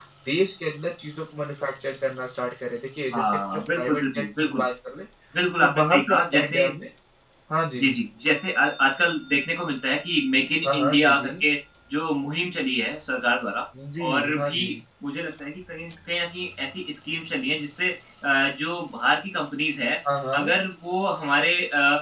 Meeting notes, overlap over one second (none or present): present